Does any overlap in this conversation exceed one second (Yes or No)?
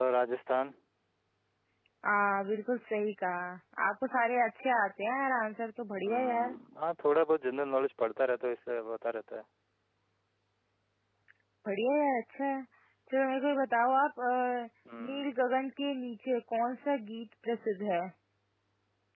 No